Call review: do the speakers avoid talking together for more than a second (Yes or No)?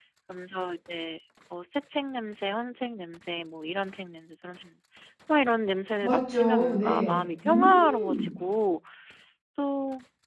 No